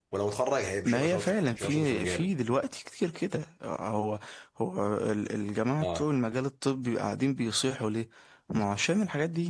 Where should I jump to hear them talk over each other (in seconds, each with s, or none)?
0.8 s